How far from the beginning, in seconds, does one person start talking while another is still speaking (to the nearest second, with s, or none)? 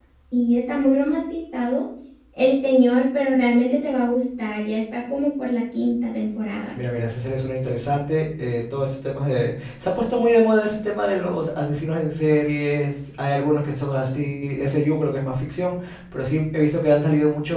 none